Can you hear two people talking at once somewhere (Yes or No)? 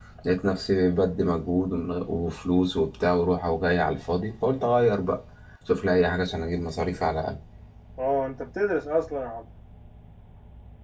No